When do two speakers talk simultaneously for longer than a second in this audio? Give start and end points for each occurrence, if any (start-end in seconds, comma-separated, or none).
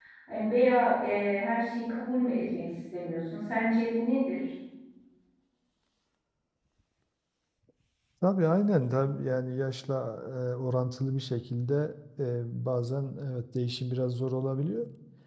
none